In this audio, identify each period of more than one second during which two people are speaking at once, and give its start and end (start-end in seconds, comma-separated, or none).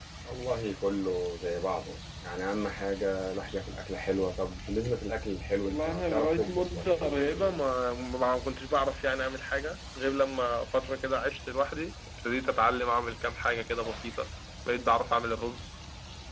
5.6-7.5